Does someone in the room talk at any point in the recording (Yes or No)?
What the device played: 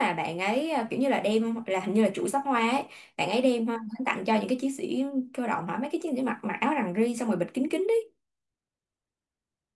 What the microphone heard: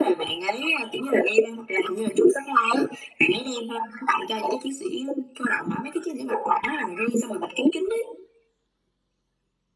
No